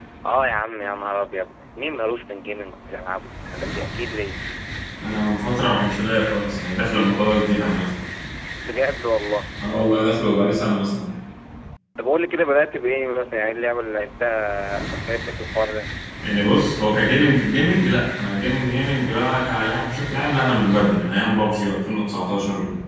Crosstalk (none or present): none